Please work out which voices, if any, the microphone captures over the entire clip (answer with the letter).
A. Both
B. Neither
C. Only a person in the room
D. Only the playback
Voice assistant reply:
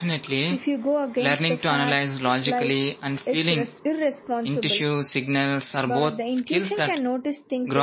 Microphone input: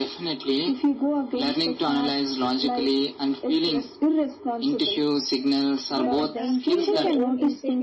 A